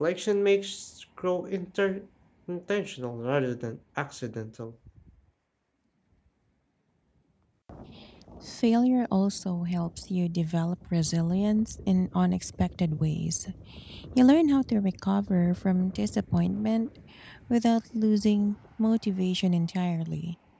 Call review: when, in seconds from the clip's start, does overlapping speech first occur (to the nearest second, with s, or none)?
none